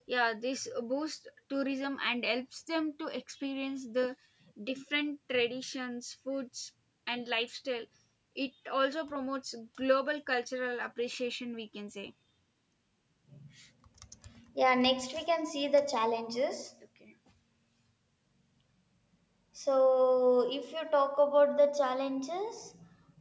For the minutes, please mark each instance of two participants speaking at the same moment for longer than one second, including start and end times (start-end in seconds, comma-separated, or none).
none